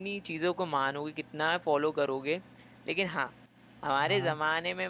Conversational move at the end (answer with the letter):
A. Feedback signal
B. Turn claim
A